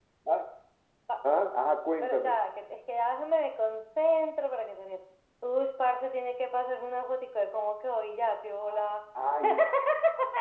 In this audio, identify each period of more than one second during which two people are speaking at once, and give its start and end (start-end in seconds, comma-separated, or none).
none